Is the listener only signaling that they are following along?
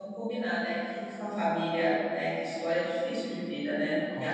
Yes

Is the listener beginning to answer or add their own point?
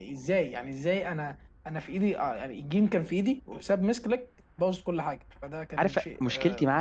Yes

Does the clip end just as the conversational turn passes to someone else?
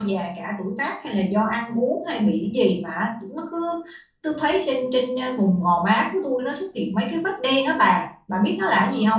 Yes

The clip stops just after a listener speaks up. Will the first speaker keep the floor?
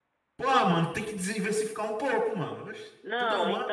No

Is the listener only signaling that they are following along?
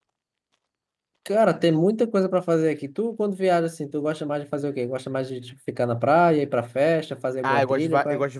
No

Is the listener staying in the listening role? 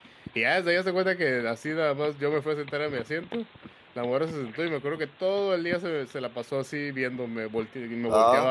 Yes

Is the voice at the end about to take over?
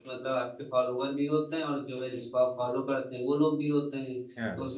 No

